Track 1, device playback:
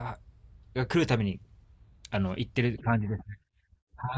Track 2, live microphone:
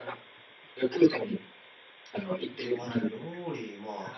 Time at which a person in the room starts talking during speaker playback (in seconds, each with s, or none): 2.5 s